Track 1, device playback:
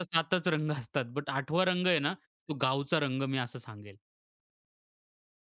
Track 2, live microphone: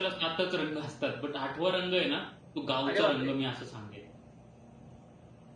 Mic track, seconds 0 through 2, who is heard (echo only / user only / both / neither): echo only